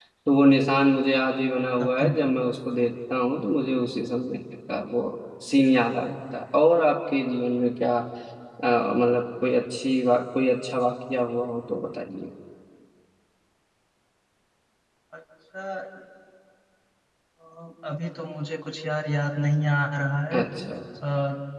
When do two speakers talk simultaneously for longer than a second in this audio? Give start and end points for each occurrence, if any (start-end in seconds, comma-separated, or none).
none